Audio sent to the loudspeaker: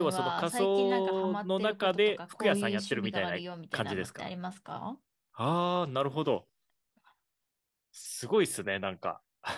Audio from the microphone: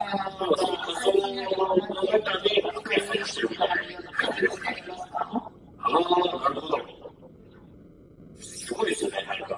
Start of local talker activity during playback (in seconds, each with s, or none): none